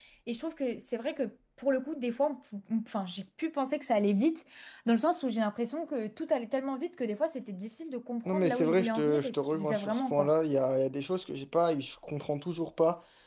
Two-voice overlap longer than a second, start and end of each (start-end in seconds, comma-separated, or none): 8.2-10.3